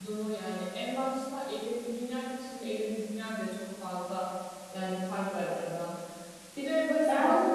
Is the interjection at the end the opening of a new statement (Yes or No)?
No